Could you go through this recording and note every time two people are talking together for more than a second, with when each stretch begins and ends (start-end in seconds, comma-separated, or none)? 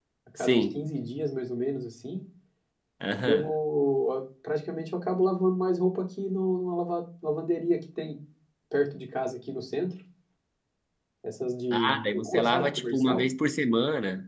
11.7-13.2